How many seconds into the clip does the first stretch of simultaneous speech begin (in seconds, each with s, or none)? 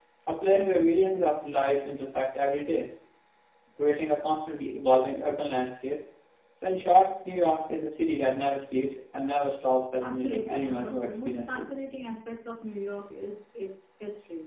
10.0 s